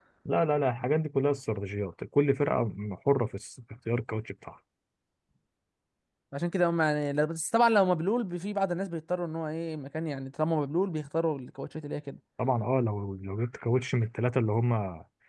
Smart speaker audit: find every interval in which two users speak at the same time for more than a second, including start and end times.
none

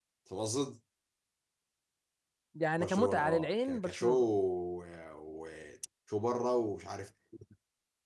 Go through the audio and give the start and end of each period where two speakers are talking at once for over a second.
2.8-4.2

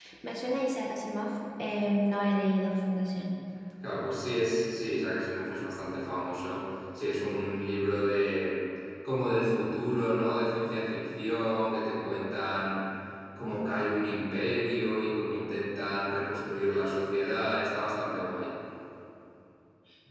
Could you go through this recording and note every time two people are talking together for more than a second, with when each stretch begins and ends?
none

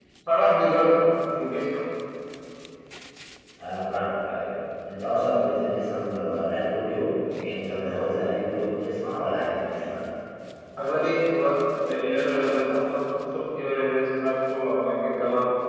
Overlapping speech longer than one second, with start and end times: none

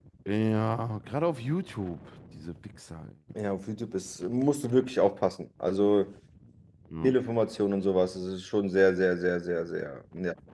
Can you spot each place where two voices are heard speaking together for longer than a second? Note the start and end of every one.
none

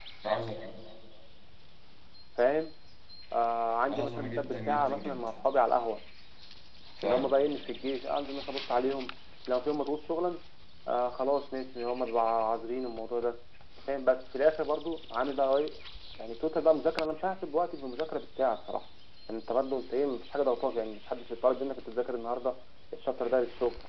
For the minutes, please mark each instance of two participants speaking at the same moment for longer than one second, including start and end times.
3.9-5.2

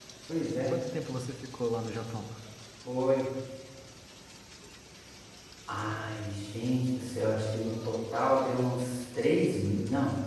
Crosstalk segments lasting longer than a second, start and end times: none

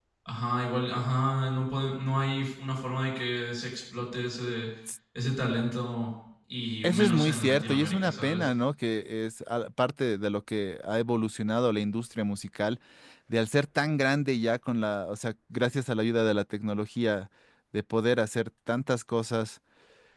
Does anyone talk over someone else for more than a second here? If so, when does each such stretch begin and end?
6.8-8.5

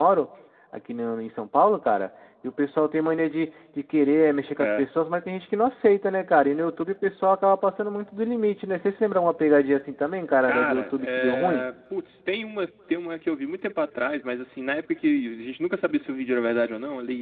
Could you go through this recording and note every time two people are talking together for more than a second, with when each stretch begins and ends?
10.4-11.6

